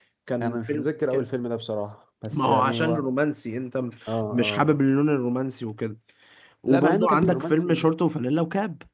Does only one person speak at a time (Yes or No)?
No